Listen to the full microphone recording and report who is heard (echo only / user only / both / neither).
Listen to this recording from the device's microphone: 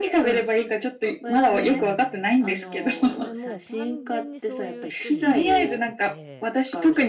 both